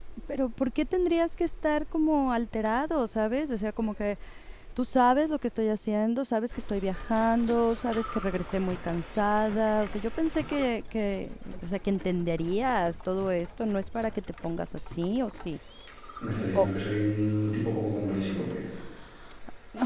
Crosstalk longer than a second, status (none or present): none